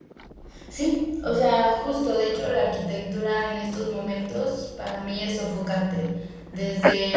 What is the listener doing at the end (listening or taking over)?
listening